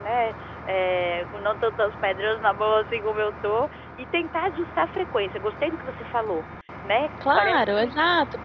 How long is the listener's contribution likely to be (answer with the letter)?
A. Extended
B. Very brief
A